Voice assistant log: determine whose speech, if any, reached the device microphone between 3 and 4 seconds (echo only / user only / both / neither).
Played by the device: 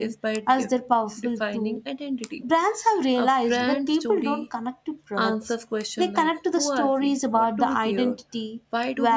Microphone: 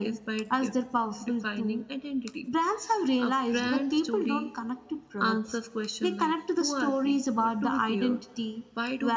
echo only